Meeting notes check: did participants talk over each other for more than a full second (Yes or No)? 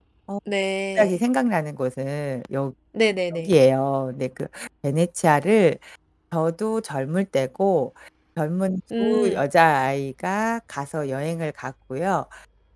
No